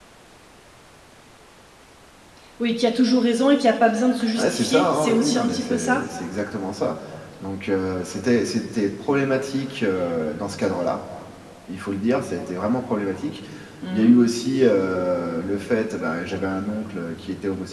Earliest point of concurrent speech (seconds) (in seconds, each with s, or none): 4.4 s